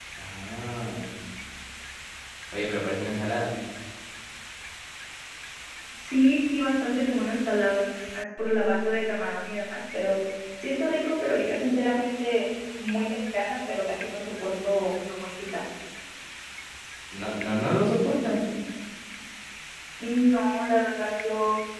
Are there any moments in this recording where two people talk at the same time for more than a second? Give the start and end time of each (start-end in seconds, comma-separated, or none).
none